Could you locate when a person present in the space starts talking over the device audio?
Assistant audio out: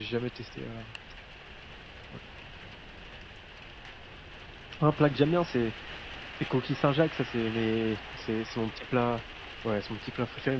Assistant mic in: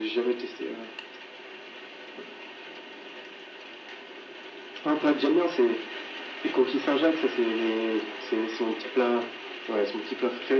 none

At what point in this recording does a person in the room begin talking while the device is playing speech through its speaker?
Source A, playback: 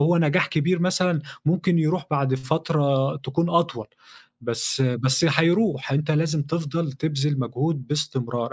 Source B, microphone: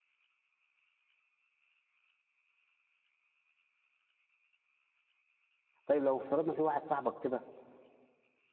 5.8 s

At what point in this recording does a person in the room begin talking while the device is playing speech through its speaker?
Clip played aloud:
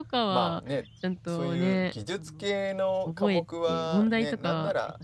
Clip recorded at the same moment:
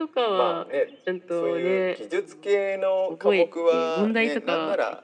none

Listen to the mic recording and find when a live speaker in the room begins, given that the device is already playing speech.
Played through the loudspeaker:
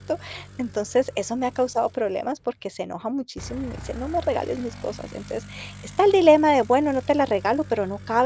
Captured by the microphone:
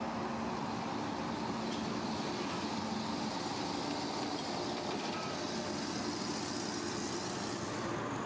none

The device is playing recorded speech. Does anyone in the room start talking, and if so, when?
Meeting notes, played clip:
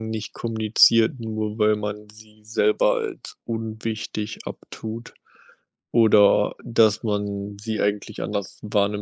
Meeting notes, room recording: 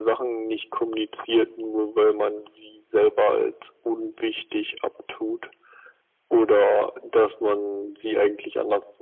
none

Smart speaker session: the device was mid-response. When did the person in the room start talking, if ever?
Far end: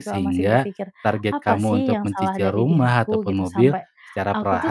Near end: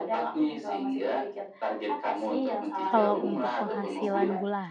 2.9 s

